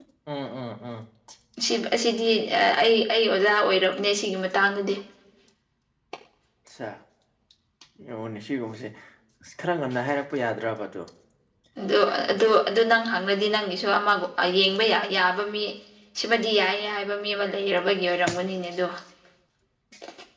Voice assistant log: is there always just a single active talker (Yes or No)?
Yes